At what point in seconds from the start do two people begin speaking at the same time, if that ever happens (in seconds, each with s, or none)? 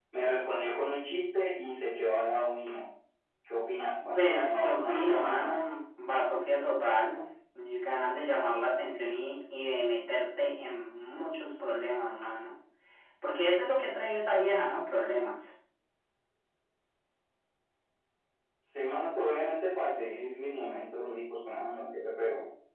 4.1 s